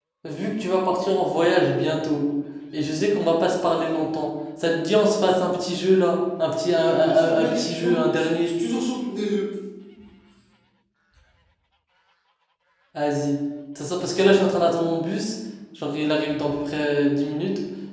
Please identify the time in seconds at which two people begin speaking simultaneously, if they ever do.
6.8 s

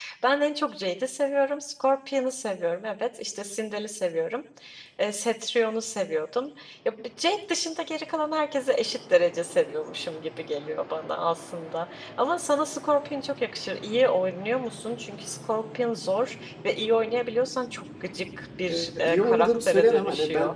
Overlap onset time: 18.7 s

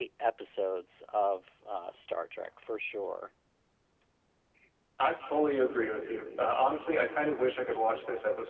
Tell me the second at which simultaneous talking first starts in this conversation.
none

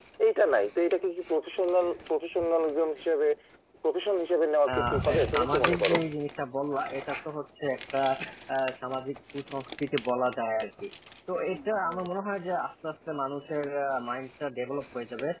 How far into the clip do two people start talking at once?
4.7 s

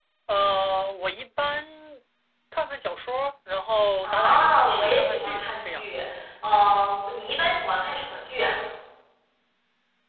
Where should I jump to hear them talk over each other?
4.0 s

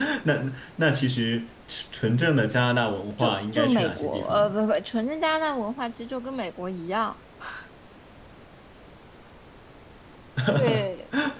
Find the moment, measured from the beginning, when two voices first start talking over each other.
3.2 s

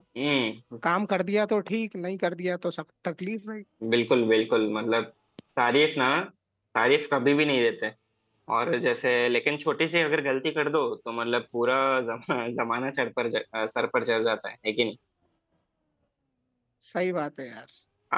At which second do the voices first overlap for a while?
none

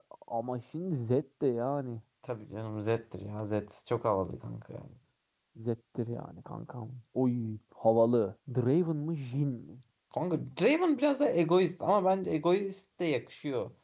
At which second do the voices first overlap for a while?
none

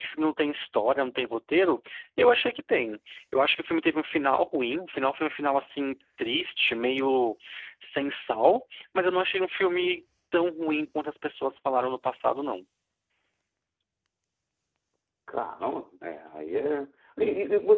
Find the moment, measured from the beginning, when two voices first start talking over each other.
none

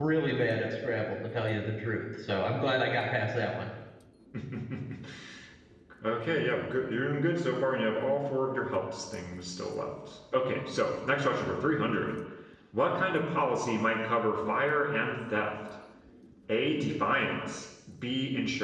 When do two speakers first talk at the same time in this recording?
none

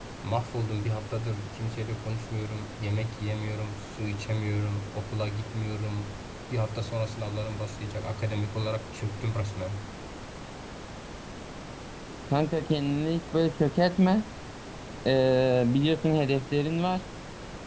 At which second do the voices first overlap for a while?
none

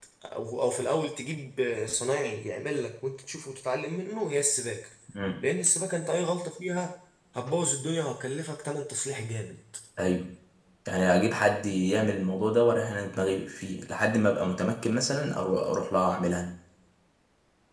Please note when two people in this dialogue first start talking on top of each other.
none

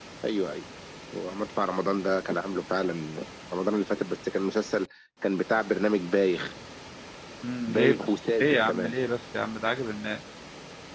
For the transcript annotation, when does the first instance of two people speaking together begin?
7.7 s

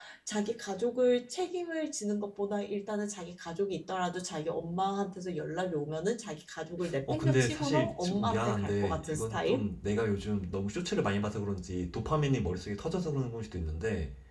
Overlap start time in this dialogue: 7.1 s

